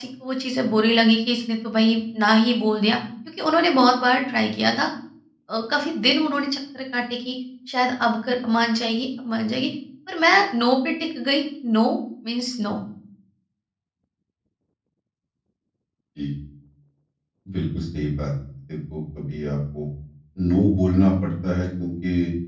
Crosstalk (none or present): none